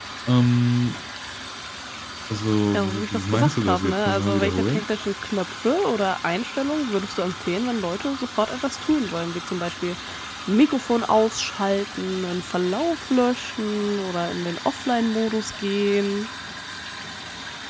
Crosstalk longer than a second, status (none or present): present